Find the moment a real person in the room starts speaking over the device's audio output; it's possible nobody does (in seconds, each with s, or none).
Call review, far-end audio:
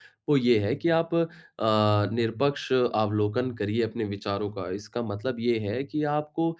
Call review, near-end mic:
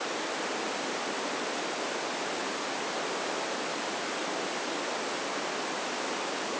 none